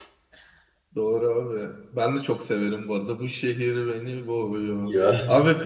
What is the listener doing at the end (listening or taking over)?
listening